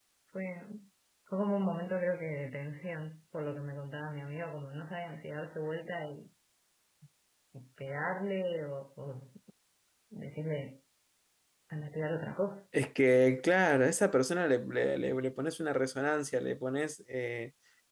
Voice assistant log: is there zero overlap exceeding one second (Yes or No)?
Yes